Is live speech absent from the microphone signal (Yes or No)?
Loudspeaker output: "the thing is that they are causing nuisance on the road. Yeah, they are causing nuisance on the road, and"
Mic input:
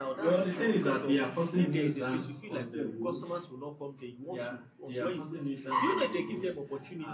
No